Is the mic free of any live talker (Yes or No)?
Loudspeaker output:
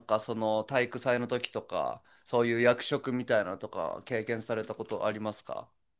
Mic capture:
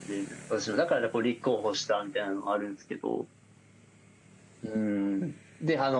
No